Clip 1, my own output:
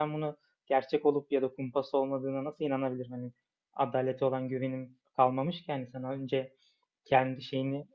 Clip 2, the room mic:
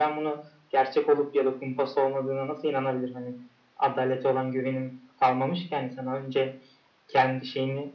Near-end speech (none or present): none